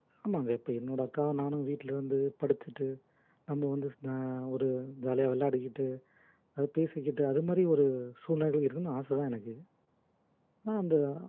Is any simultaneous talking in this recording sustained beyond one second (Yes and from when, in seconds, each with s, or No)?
No